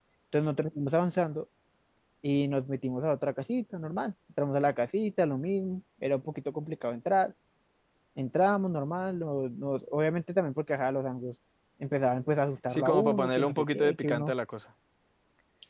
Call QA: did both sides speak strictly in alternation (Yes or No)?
No